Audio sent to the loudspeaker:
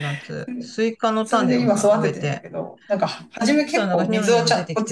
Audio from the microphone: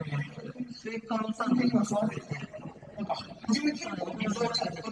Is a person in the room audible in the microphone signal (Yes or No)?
No